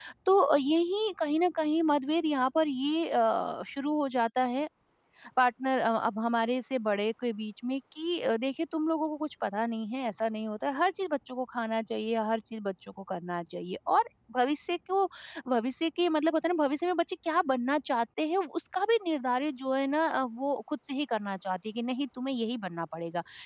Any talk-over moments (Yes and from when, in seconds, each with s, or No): No